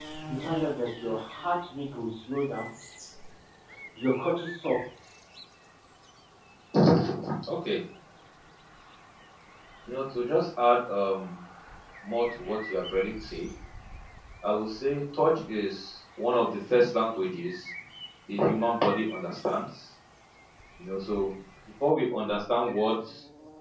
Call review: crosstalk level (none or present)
none